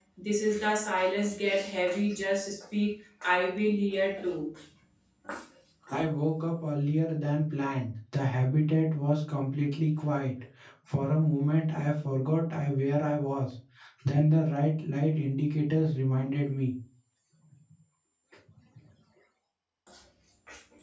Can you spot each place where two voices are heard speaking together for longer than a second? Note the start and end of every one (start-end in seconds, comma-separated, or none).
none